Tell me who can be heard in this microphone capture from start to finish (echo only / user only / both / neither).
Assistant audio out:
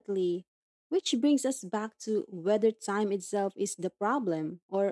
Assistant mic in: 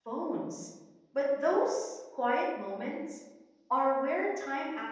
user only